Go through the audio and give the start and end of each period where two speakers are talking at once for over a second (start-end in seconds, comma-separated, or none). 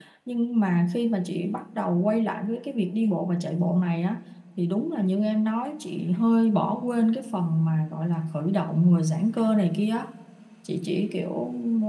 none